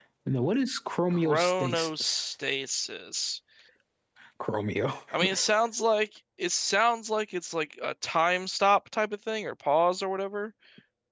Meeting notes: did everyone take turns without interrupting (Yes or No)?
No